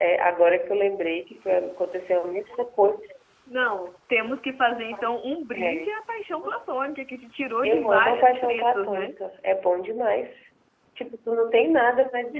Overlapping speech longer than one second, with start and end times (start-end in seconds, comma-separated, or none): 7.6-9.1